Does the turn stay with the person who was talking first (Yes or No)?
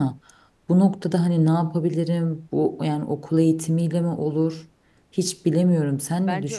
No